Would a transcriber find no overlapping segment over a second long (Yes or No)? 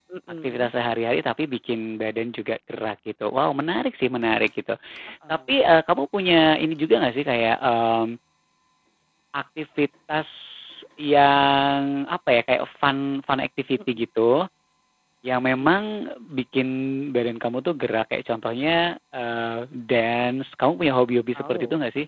Yes